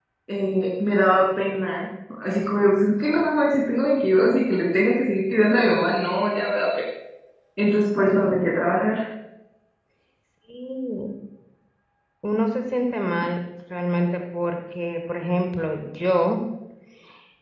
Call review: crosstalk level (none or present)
none